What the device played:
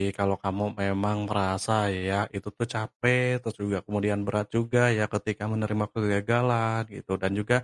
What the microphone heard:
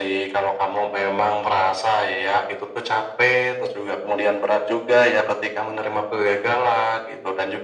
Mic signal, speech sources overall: echo only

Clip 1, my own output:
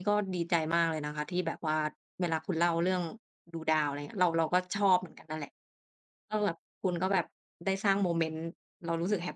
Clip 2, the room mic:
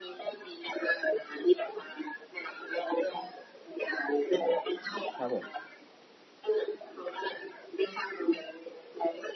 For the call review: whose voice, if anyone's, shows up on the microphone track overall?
both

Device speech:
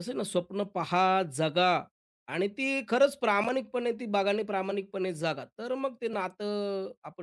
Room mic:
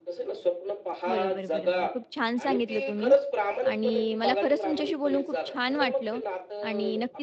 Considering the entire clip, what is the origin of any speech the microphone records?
both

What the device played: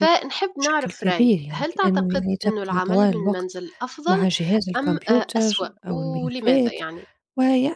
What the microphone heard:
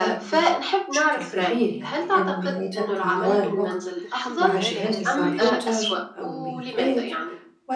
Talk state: both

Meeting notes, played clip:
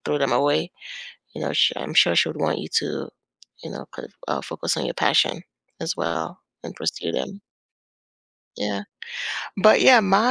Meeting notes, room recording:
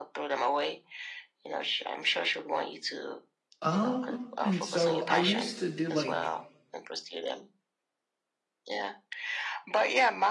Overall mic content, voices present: both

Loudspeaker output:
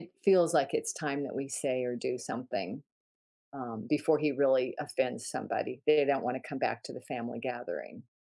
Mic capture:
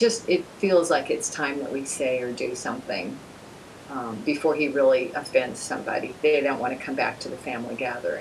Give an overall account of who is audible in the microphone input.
echo only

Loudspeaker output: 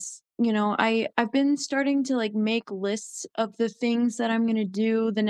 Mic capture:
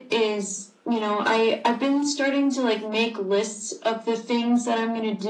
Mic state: echo only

